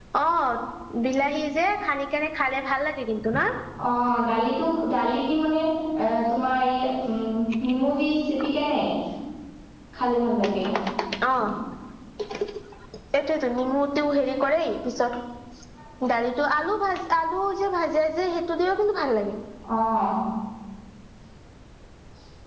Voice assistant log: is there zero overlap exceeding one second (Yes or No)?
Yes